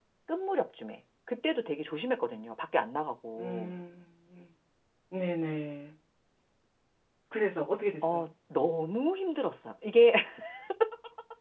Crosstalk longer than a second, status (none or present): none